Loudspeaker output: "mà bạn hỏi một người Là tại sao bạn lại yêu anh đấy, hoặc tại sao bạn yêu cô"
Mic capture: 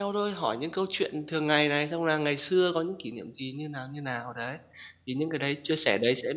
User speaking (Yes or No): Yes